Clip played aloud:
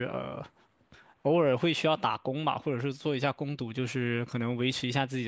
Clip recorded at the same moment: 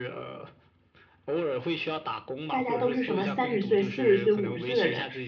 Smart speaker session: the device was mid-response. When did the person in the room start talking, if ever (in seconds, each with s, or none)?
2.5 s